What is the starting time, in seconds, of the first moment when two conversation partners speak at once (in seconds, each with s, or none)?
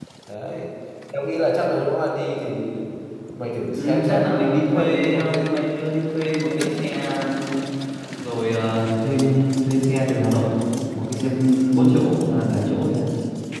3.7 s